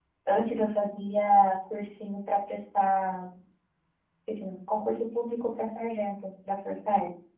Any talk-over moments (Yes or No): No